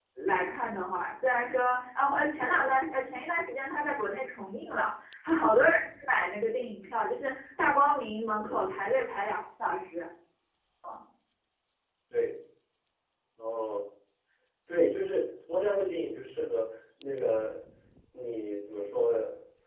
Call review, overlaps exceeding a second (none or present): none